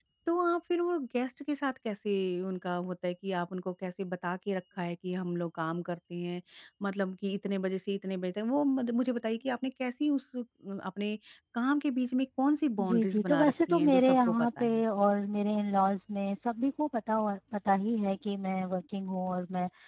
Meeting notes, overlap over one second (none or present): present